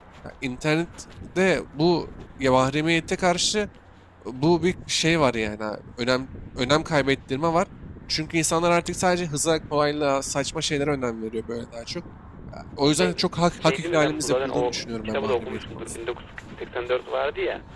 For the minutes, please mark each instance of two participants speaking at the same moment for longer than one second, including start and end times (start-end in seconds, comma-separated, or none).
13.6-16.0